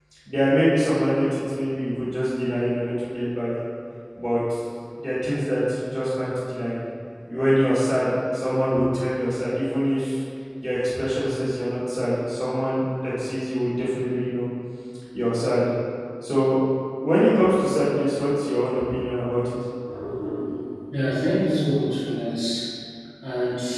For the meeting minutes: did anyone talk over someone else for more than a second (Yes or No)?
No